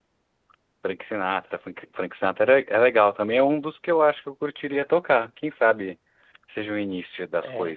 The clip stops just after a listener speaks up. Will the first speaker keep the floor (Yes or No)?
No